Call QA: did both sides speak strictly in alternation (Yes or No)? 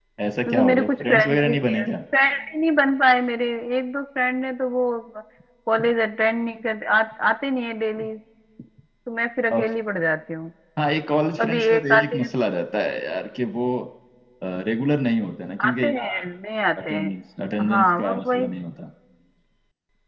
No